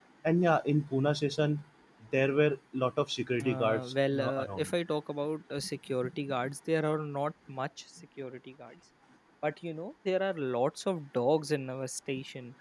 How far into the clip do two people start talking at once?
3.4 s

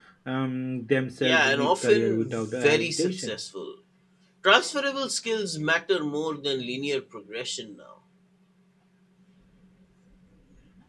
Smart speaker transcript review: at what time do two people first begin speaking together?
1.2 s

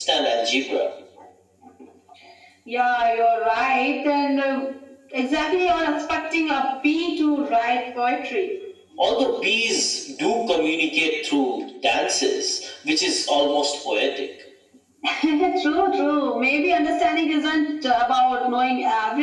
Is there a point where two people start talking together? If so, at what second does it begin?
none

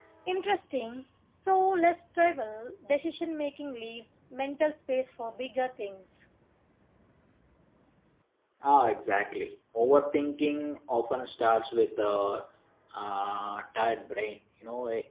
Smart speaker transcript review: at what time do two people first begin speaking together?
none

